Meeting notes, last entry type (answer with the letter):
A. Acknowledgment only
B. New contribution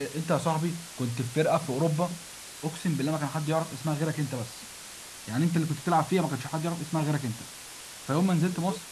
A